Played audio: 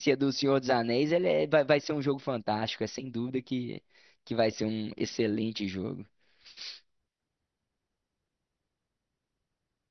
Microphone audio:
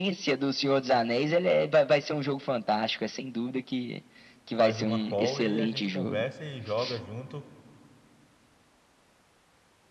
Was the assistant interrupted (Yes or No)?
Yes